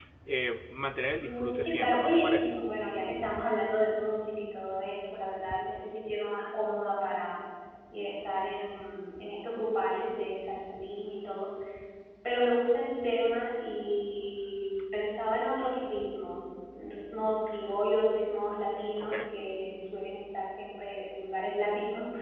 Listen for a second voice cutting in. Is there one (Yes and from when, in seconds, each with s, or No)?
Yes, from 1.2 s